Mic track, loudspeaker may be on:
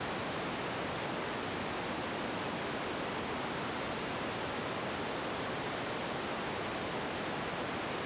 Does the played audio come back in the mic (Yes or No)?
No